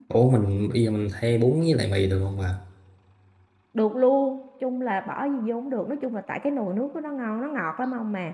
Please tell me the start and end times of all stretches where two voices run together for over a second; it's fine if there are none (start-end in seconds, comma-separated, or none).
none